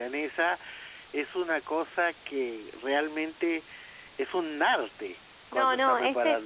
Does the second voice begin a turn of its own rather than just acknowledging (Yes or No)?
Yes